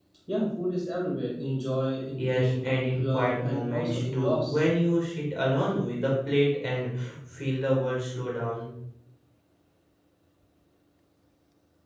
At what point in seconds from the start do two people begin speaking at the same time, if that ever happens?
2 s

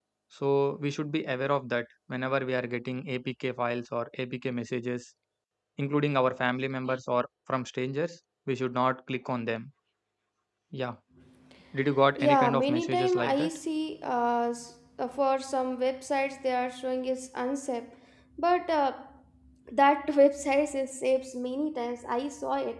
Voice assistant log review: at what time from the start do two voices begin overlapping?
12 s

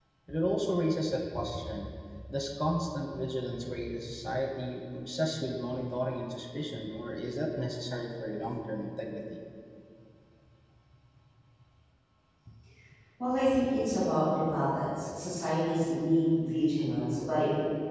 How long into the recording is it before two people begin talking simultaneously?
none

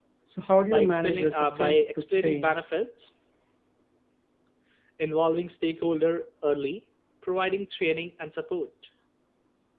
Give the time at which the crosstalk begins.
1 s

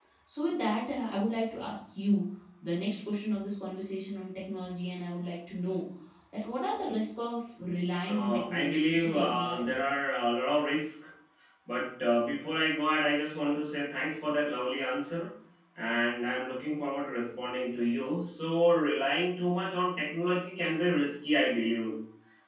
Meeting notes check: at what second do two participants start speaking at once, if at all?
8 s

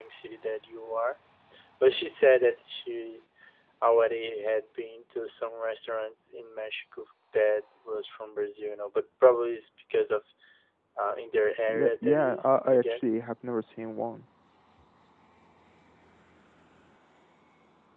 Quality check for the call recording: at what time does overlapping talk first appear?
12 s

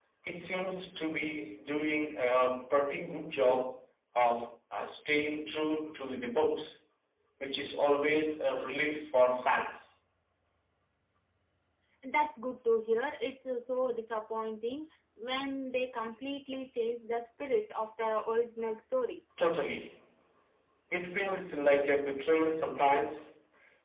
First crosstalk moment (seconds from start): none

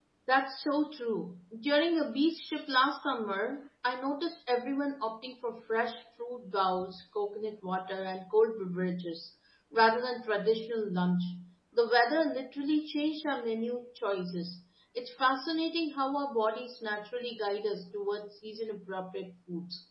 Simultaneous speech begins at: none

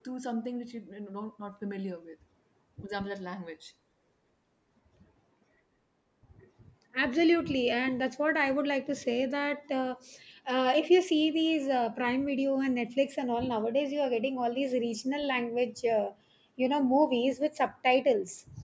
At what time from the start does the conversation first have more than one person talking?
none

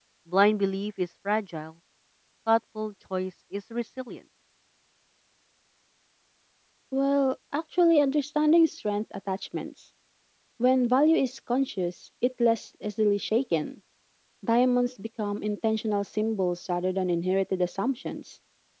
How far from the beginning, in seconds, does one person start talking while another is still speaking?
none

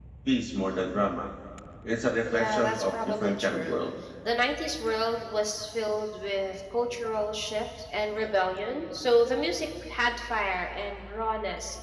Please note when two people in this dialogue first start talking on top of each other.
2 s

